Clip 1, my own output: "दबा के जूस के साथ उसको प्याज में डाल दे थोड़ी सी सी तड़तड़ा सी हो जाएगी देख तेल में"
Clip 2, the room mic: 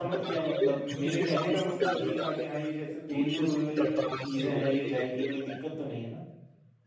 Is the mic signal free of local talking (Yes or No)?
No